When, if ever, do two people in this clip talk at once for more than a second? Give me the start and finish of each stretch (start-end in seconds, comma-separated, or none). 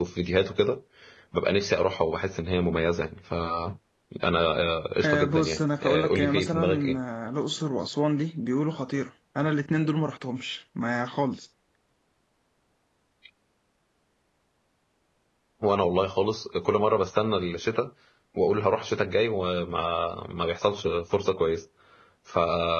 5.0-7.0